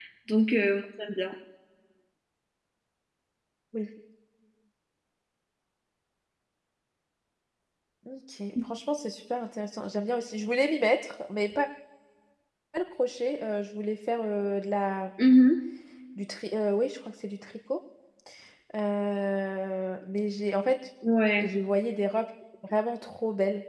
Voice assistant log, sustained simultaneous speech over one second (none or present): none